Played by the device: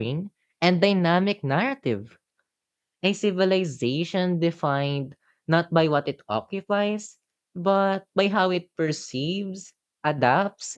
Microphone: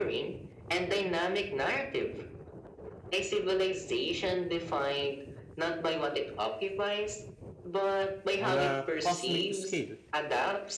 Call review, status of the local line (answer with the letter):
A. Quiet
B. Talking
B